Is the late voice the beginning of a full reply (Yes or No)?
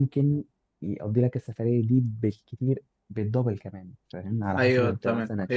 Yes